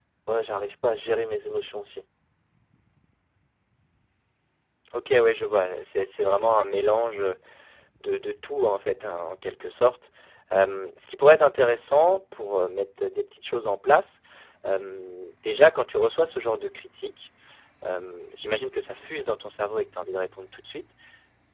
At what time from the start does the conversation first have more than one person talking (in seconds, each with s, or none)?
none